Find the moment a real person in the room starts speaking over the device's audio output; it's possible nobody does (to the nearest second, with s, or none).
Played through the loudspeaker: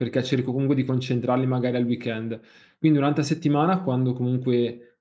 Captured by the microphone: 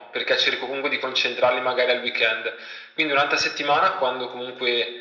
none